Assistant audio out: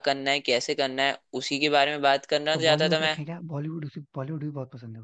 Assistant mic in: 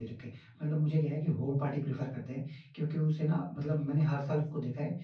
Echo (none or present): none